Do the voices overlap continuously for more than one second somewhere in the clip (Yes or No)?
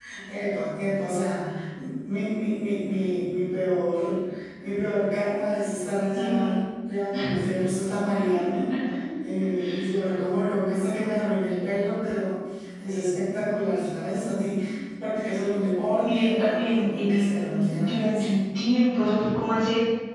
Yes